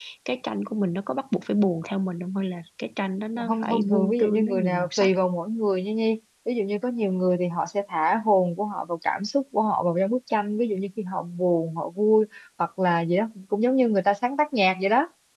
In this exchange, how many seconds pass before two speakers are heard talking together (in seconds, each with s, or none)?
3.4 s